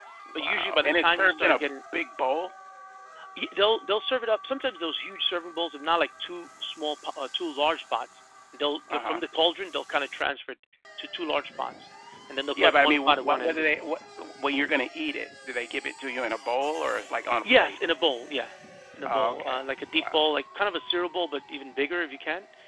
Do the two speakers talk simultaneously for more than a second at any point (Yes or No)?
Yes